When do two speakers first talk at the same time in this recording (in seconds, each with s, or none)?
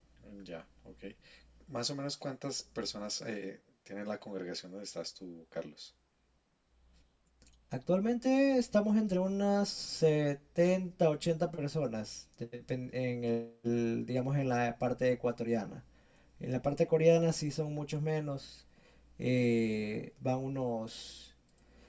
none